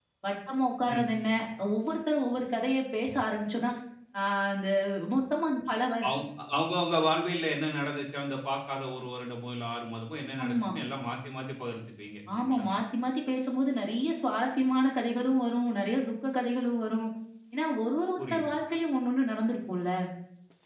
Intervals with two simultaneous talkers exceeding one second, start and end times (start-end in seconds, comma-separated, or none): none